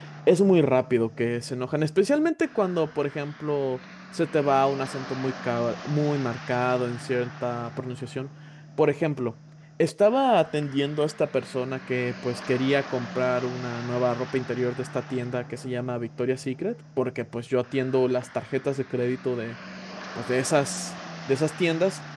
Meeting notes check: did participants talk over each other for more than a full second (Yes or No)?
No